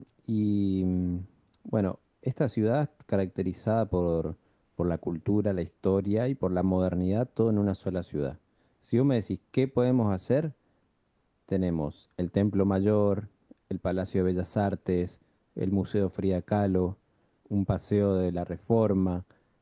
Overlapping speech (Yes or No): No